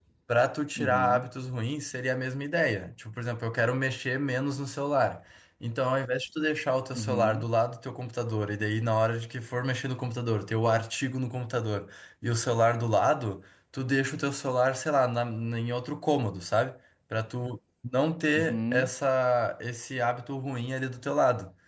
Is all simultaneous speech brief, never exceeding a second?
Yes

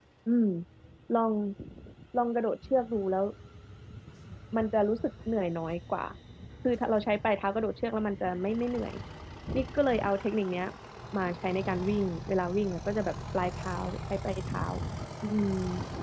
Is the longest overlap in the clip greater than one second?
No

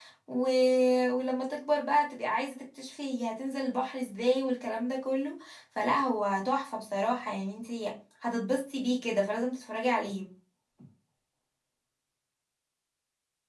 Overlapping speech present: No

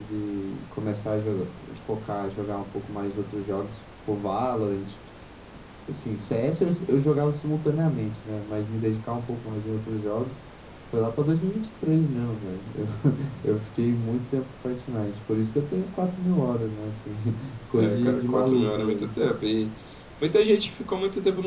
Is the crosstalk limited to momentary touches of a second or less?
No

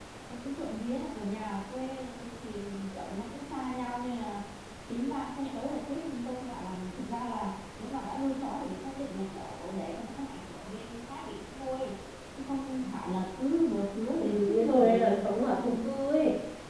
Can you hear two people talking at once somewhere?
Yes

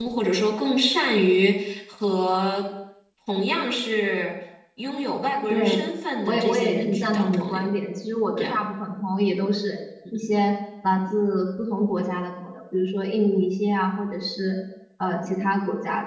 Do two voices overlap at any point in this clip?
Yes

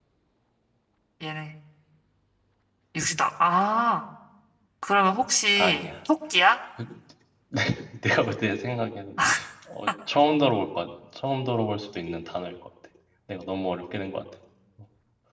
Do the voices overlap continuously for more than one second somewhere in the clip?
No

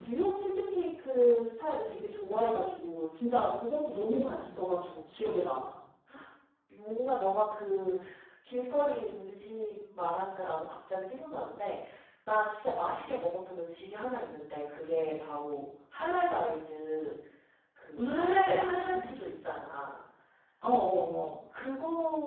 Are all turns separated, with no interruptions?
No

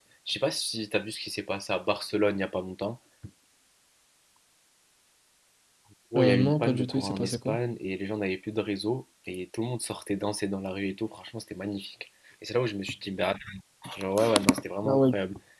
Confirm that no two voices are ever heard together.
No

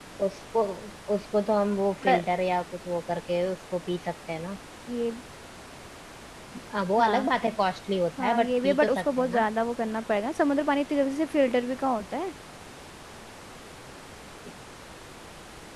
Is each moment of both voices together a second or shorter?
No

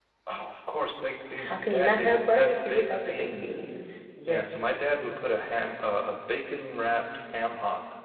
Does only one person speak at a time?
No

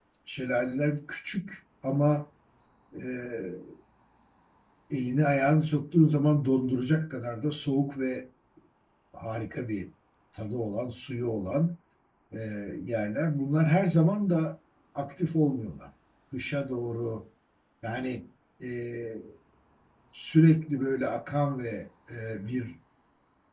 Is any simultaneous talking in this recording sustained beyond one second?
No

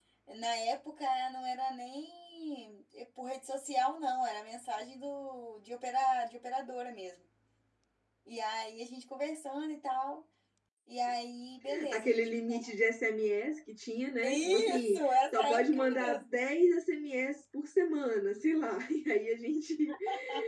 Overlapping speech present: Yes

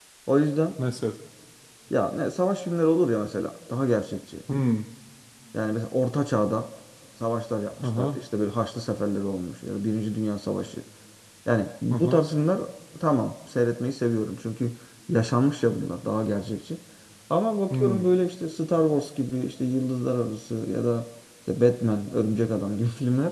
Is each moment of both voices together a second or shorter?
Yes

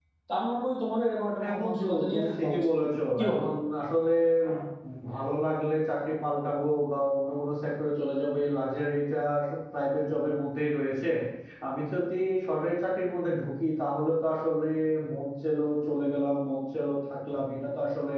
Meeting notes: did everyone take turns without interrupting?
No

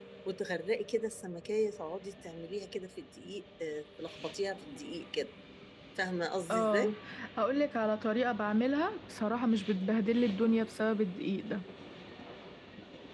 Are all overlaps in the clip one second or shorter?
Yes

